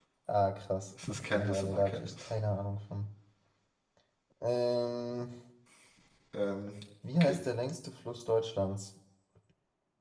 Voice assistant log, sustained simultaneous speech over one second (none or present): present